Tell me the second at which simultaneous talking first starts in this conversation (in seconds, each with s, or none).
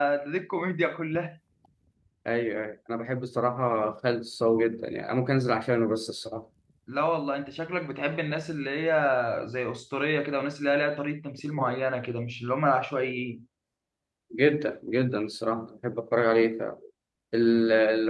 none